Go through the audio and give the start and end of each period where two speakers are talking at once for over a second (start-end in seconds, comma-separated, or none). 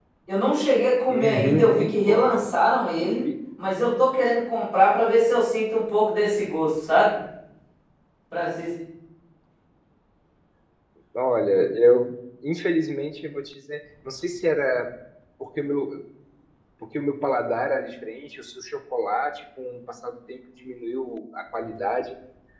1.1-2.5